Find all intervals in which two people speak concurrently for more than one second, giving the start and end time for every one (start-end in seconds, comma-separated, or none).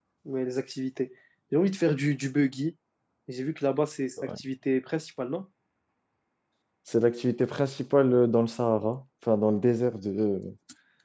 none